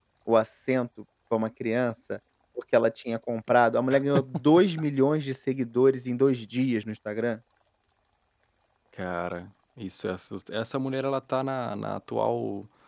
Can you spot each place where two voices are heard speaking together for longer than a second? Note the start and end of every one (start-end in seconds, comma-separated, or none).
none